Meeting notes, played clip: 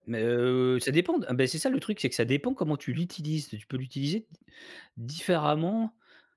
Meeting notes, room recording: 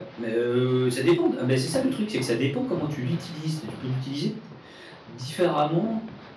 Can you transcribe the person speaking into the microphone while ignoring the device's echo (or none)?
none